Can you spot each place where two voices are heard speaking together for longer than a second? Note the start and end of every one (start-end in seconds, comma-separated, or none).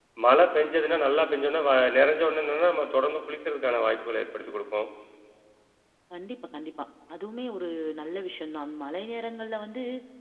none